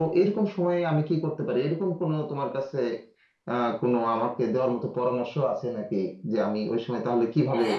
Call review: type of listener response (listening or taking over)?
taking over